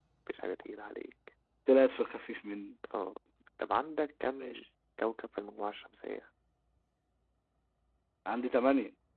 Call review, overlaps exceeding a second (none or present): none